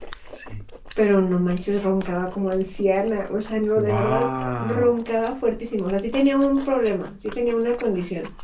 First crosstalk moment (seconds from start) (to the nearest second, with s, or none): 4 s